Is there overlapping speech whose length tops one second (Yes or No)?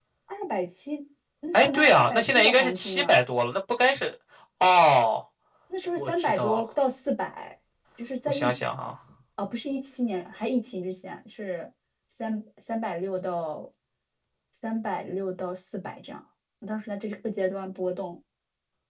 Yes